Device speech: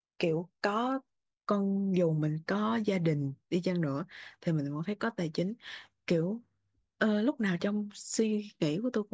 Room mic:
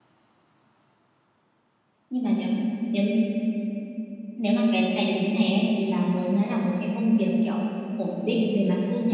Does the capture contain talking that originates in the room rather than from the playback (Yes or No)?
Yes